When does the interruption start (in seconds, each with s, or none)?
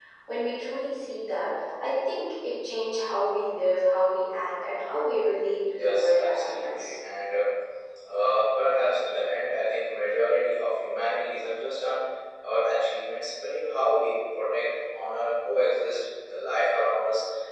5.7 s